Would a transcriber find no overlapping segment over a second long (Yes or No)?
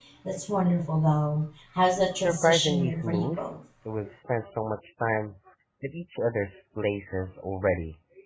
No